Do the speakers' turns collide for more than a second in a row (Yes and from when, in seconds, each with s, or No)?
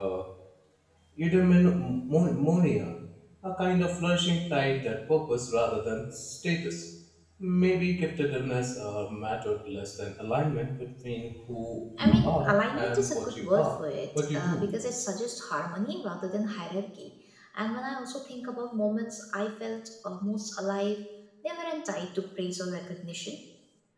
Yes, from 12.0 s